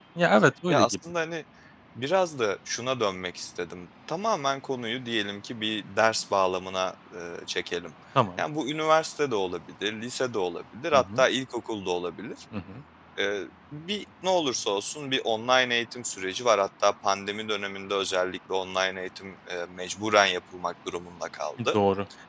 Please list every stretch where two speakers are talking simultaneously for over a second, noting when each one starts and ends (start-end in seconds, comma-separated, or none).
none